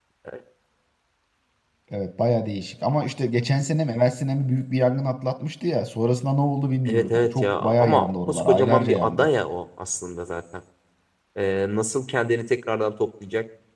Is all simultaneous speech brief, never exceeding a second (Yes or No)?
No